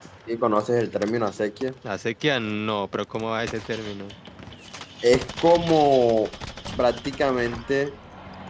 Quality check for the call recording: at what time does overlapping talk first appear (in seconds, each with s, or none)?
none